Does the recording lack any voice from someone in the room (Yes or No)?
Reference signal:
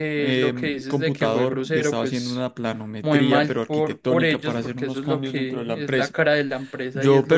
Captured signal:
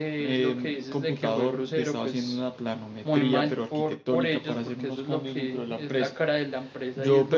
Yes